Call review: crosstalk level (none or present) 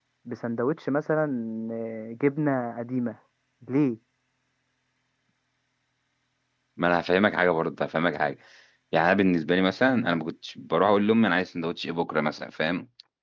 none